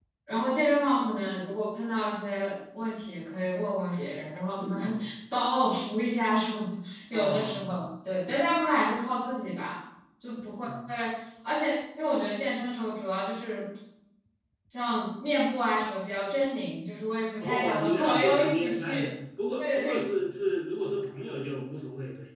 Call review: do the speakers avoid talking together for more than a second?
No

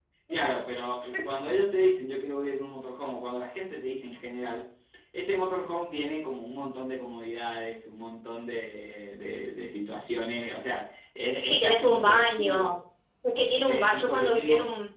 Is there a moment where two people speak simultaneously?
Yes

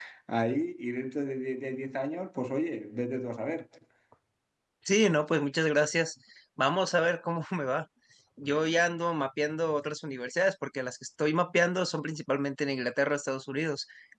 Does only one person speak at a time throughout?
Yes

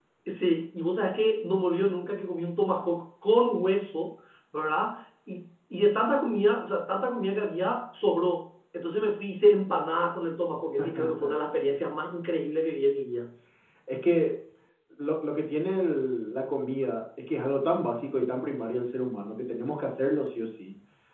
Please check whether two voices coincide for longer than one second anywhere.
No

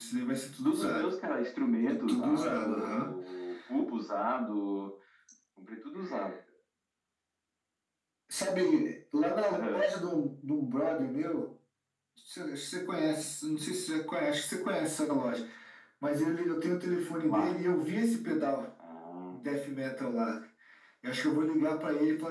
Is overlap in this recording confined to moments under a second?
No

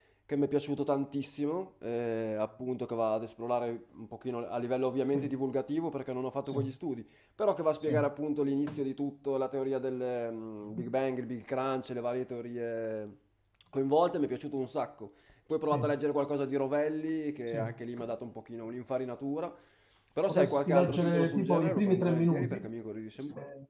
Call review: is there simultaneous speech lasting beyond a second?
Yes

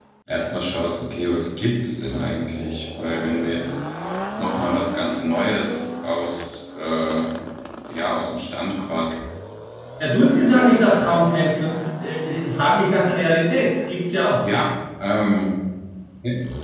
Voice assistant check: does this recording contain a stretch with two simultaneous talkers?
No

